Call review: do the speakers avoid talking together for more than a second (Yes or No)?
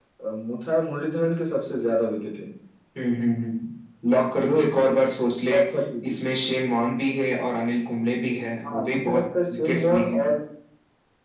No